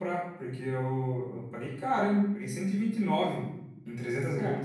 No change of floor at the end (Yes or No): No